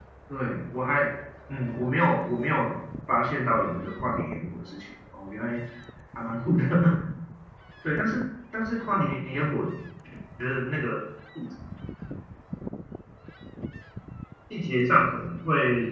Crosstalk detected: No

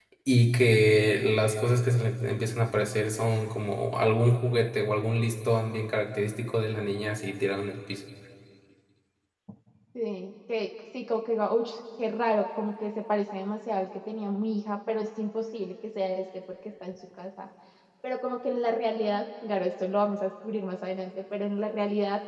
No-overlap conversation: Yes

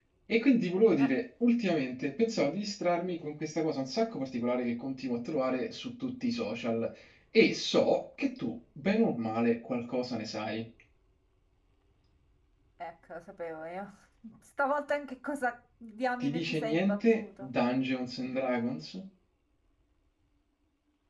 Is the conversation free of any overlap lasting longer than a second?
No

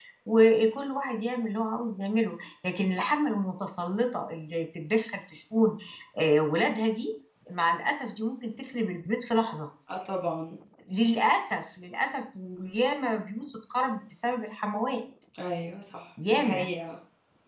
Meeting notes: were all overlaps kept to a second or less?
Yes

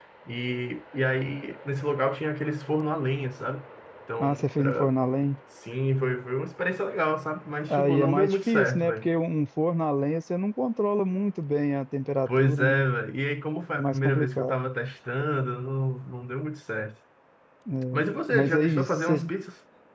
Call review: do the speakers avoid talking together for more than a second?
No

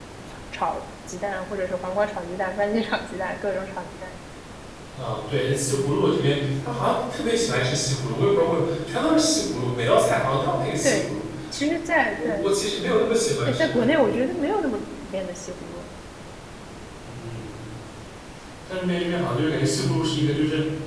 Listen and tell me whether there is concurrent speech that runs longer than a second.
No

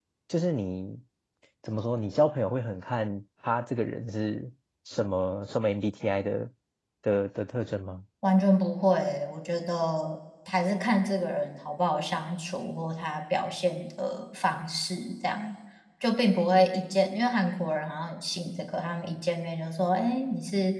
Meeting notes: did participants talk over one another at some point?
No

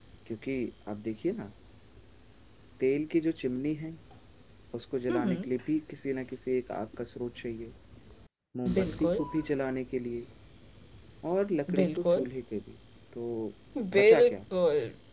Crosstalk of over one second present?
No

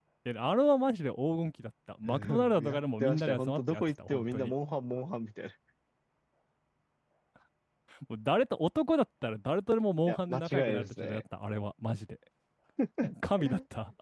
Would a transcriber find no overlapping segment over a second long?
No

